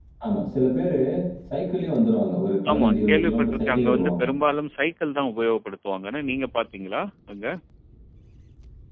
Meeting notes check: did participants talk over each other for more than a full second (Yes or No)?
Yes